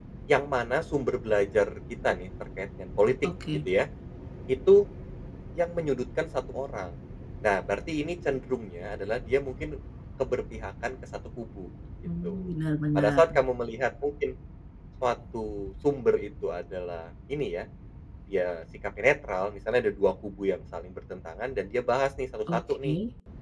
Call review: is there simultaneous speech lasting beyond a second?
No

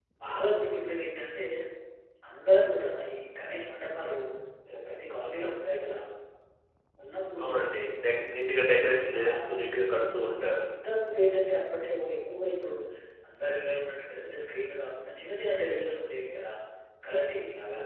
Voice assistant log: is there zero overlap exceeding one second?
Yes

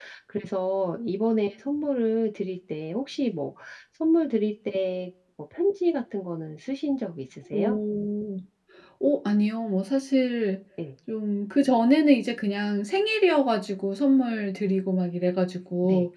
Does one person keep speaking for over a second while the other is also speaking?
No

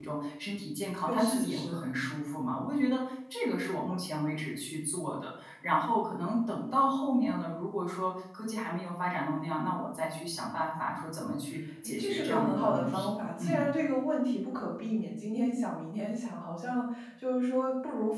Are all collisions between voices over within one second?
No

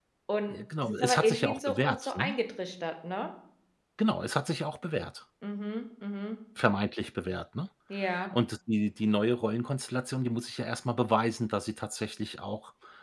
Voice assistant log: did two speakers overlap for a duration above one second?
Yes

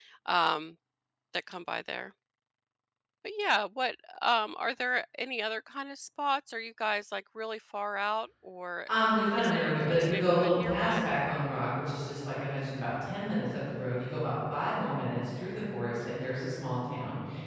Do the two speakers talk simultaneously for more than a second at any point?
Yes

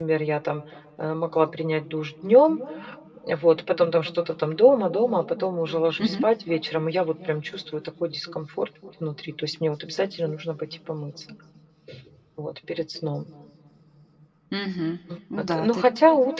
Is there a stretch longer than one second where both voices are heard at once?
No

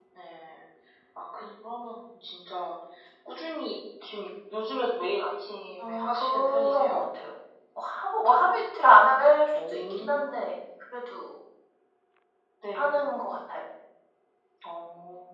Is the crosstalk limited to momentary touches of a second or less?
No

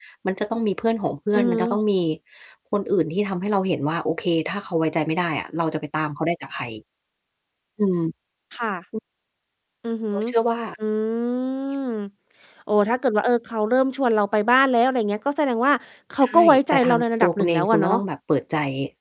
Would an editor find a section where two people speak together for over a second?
Yes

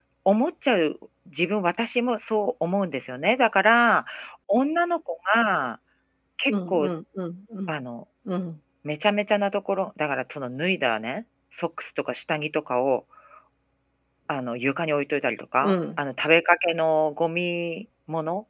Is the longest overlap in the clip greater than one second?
No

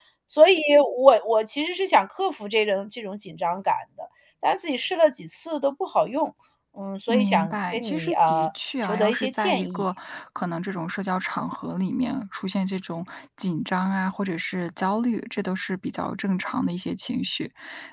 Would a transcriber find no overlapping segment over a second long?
No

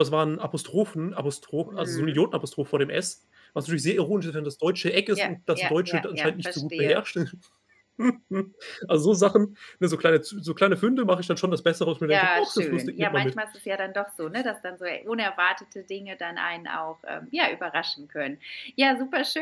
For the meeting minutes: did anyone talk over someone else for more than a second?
Yes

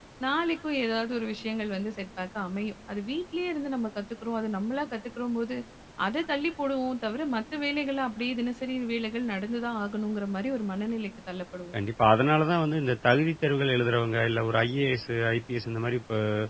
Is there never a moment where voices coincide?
Yes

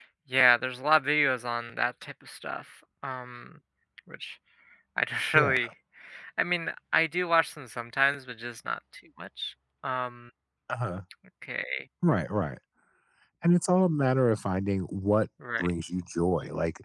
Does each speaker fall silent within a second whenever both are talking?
Yes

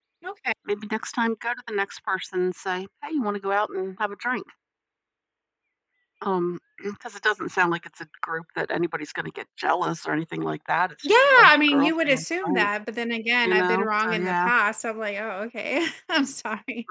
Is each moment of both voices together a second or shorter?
No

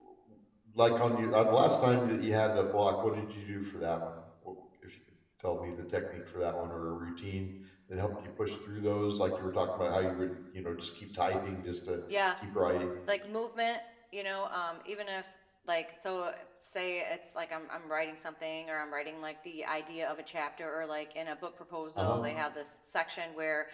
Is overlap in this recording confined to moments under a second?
Yes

